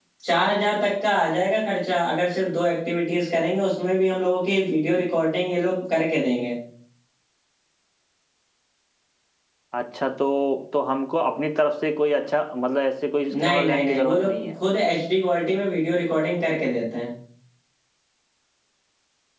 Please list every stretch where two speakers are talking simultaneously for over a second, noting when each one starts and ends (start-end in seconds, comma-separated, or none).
13.3-14.5